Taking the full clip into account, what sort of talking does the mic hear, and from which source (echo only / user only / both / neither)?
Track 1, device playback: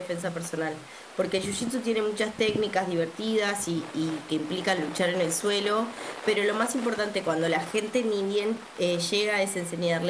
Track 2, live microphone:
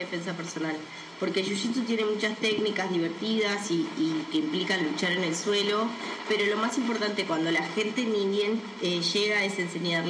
echo only